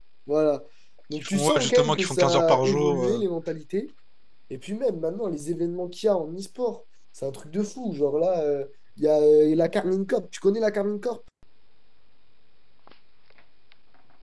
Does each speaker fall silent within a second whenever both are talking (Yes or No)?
No